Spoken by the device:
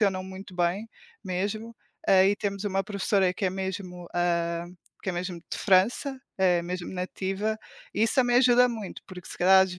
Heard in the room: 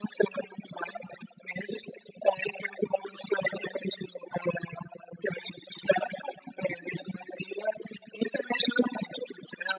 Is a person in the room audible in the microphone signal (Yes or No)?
No